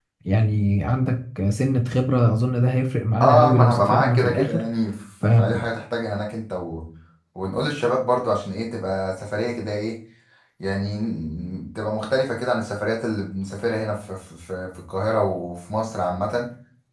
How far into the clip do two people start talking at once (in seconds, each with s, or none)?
3.2 s